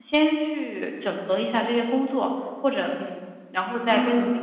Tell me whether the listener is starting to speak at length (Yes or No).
No